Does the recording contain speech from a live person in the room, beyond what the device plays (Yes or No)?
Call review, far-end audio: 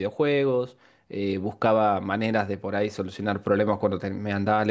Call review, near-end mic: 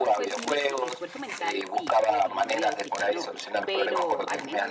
Yes